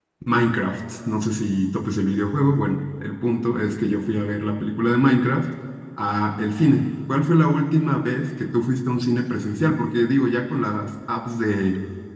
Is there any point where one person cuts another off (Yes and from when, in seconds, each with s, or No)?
No